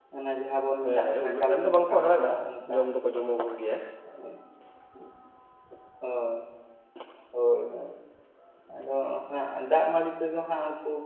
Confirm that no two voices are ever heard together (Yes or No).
No